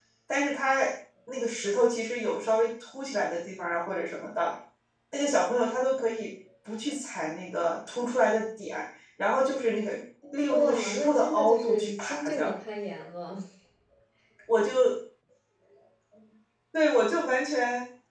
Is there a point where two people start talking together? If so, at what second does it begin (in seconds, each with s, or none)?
10.5 s